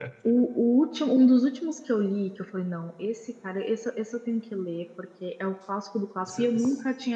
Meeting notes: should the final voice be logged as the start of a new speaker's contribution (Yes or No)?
No